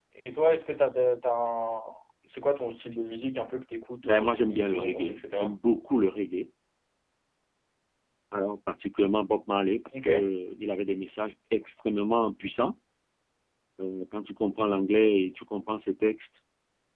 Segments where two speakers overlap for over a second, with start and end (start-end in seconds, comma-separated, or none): 4.0-5.5